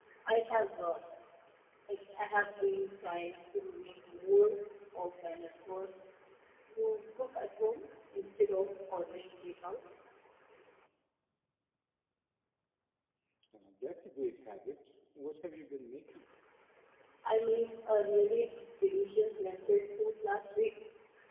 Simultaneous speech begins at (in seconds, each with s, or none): none